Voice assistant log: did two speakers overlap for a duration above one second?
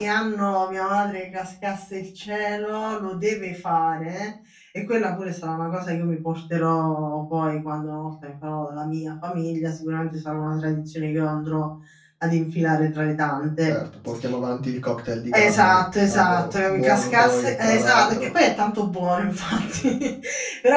Yes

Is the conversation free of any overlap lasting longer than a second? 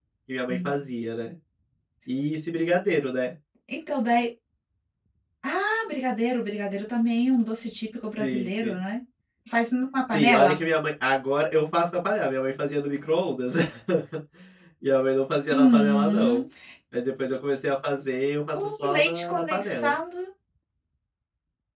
No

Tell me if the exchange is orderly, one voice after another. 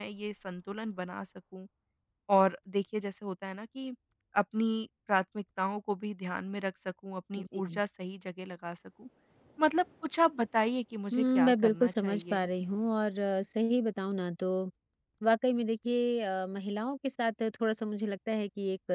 No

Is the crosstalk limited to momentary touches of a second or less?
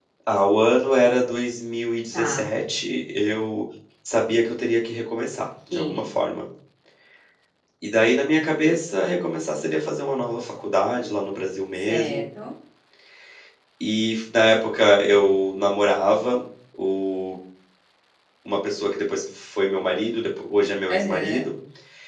Yes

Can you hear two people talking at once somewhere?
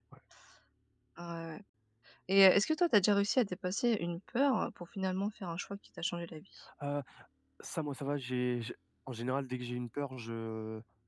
No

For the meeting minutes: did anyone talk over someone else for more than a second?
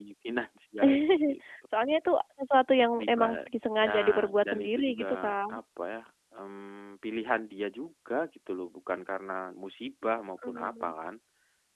Yes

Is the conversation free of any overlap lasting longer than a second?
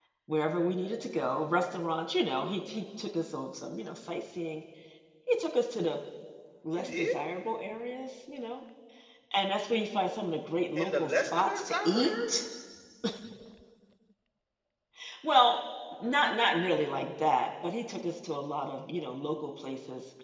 No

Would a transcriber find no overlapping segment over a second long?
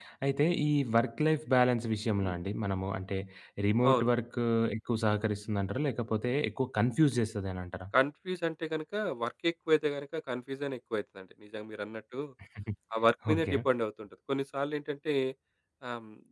Yes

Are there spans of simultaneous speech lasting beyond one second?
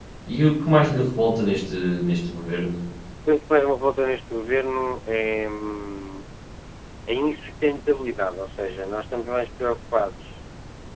No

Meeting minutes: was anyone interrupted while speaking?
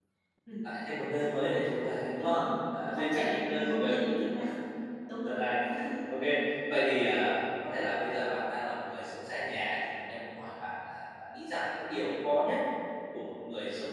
Yes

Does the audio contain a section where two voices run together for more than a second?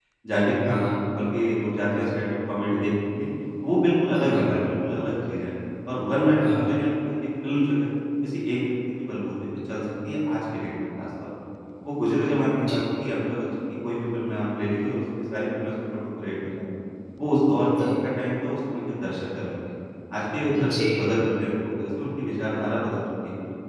No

